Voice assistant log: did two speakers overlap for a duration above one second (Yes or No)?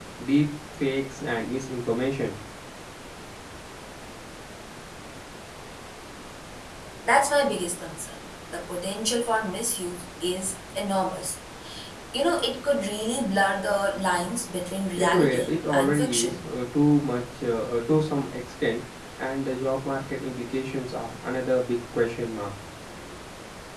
Yes